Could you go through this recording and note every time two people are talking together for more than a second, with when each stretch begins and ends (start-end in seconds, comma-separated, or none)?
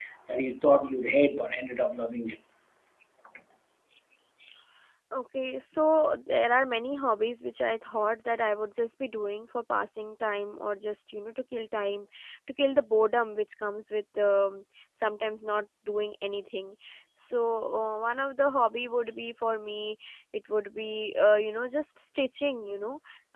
none